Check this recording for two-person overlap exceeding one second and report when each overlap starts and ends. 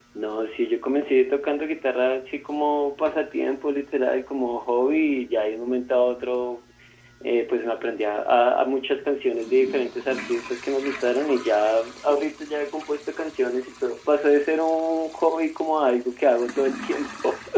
none

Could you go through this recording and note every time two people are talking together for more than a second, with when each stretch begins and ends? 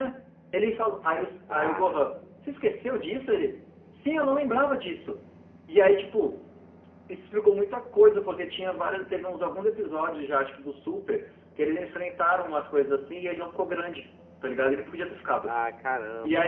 none

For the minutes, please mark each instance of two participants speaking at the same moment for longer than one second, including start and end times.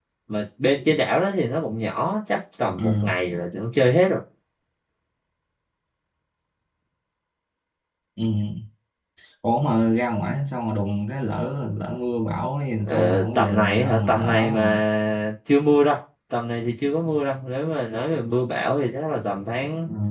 12.9-14.8

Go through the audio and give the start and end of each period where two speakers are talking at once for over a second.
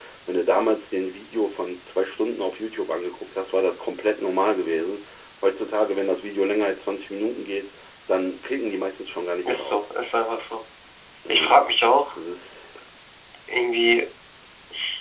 none

